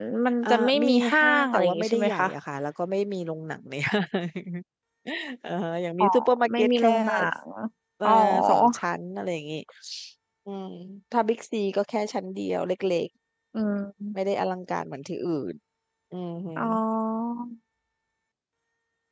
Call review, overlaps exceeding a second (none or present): present